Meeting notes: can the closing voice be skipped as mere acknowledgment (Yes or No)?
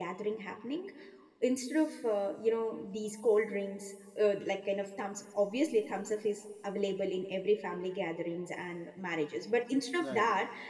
Yes